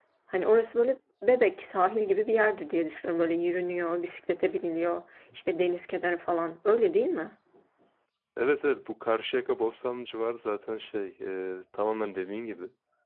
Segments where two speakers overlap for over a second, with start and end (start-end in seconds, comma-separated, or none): none